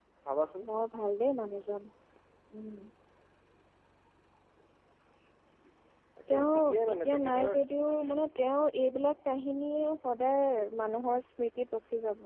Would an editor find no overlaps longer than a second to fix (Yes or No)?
No